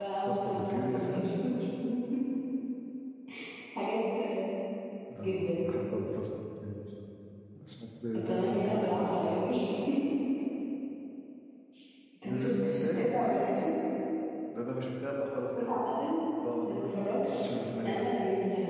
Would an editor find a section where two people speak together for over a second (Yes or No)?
Yes